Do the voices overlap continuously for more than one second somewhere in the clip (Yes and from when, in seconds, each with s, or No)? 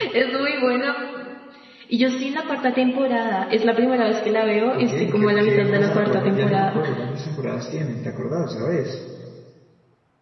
Yes, from 4.7 s